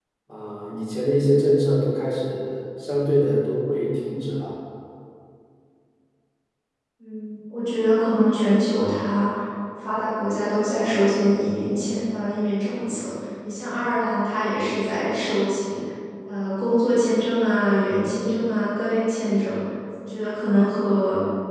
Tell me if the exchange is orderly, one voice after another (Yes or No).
Yes